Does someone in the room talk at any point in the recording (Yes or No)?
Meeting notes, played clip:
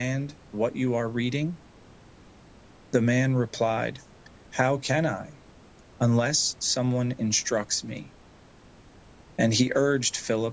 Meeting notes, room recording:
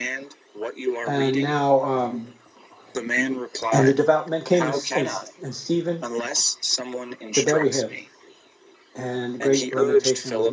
Yes